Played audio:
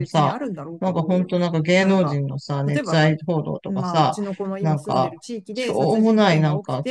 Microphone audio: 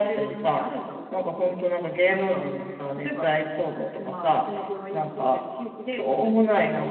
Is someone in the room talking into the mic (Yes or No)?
No